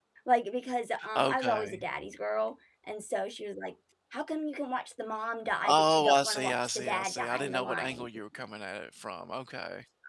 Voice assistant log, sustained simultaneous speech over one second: present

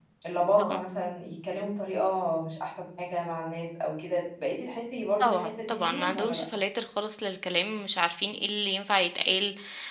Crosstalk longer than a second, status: present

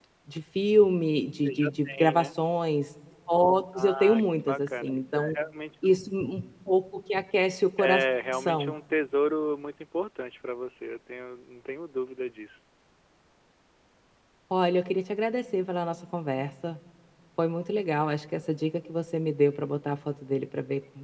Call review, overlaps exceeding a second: present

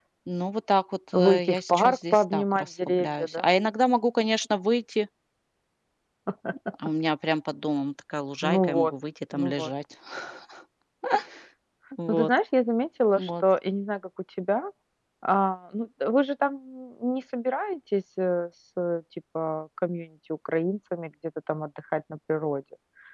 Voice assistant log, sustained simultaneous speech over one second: present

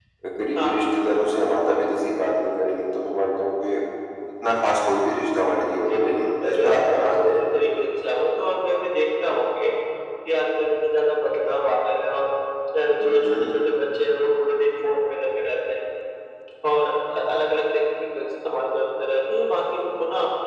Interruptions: present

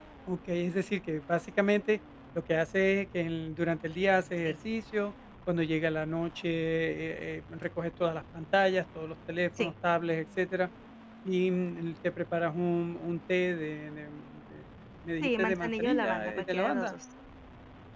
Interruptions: present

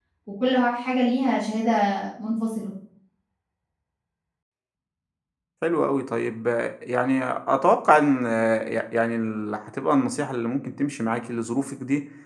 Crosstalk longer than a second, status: none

